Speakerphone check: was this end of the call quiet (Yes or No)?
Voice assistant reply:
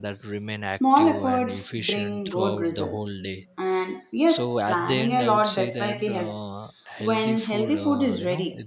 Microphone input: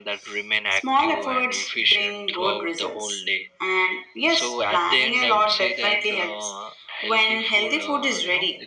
Yes